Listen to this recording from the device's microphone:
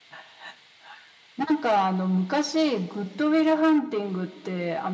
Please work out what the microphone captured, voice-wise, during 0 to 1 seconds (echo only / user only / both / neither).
neither